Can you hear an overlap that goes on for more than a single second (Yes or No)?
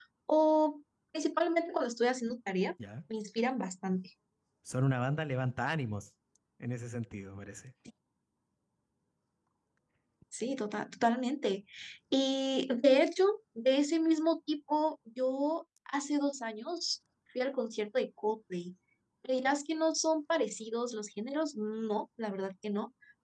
No